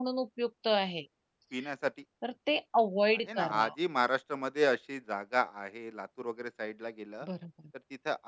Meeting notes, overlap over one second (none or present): none